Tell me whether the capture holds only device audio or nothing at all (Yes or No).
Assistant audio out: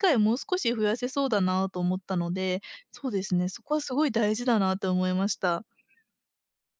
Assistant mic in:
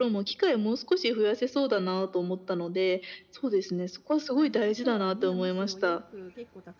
No